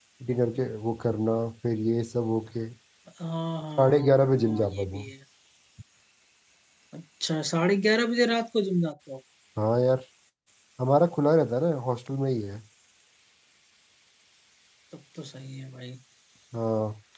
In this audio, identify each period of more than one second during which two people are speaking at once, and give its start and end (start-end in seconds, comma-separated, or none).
3.8-5.1